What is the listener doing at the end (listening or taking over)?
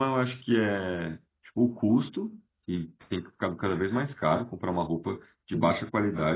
listening